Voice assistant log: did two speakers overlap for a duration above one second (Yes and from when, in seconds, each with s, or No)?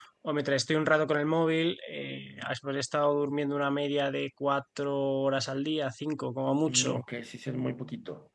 No